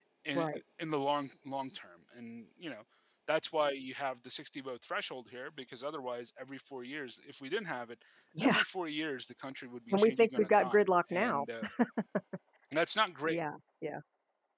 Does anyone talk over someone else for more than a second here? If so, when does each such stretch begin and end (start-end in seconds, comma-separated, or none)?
9.9-11.4